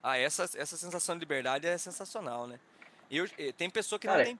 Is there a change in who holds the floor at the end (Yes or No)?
No